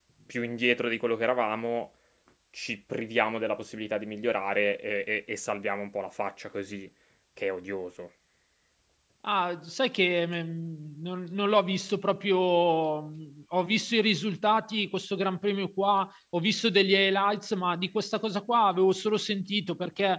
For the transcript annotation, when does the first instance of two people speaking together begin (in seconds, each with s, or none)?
none